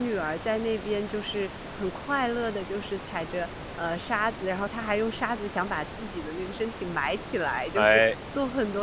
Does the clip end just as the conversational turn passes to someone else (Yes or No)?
No